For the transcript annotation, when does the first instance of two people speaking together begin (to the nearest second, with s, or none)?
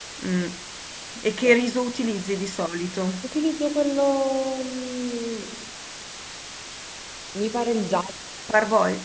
none